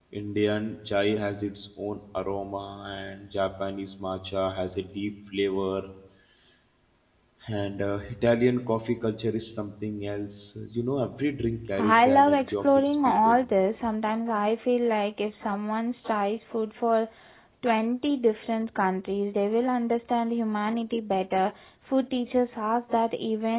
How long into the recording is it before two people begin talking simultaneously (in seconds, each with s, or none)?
11.8 s